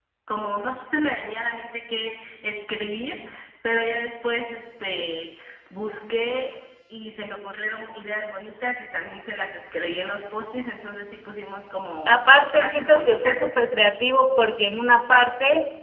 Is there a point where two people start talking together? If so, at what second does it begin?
12.1 s

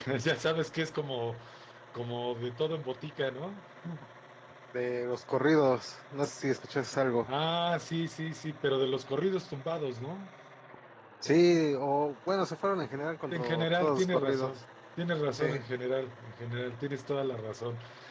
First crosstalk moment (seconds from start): 13.3 s

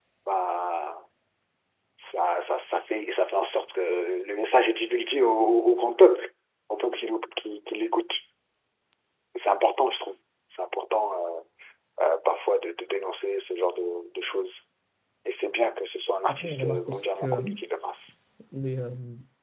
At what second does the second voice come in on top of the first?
16.3 s

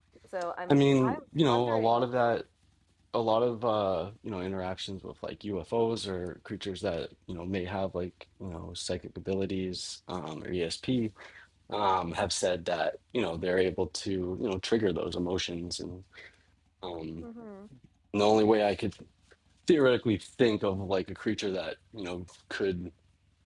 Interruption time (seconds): 0.7 s

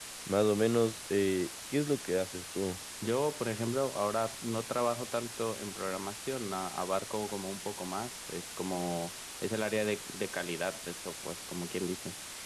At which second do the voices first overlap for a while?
none

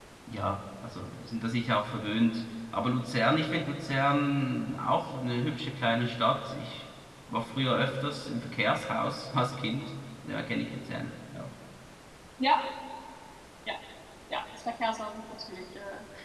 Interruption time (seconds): none

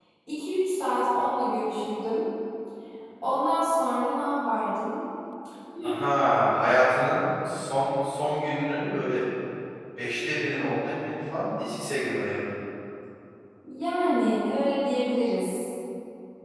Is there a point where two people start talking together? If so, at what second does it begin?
none

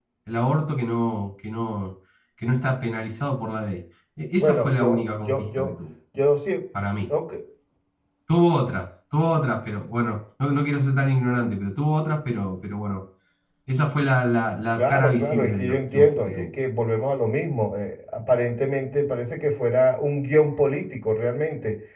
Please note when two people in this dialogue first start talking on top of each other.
4.4 s

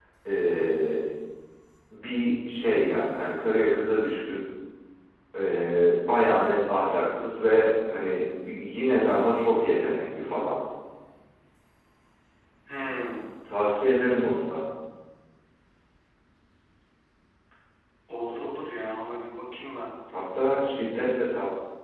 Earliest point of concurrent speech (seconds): none

